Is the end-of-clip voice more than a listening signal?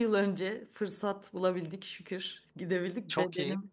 No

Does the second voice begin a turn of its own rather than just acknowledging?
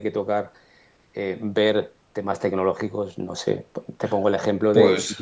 No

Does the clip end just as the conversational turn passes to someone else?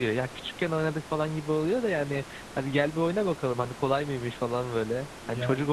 No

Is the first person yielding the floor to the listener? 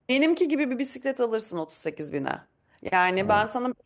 No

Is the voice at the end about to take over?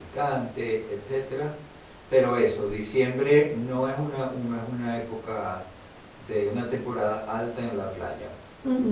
Yes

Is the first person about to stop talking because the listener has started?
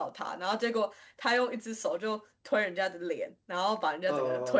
Yes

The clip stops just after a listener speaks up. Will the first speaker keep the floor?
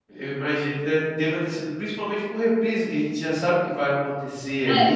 No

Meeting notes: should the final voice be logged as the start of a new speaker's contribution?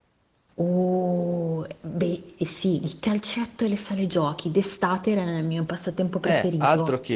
Yes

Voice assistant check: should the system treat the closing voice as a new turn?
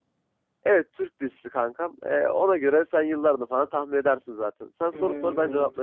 Yes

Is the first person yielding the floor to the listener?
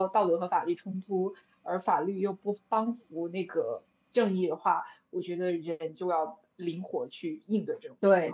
Yes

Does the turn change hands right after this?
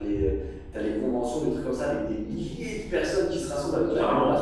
No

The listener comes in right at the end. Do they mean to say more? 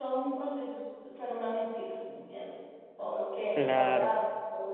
No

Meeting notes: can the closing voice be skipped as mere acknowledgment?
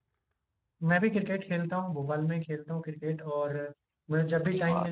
Yes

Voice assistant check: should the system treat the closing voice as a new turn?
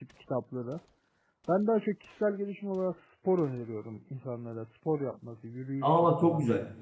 Yes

